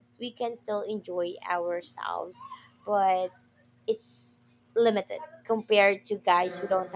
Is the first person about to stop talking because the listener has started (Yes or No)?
No